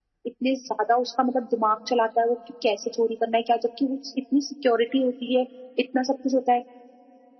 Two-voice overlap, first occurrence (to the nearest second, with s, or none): none